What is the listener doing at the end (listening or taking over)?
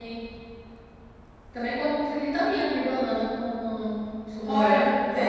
taking over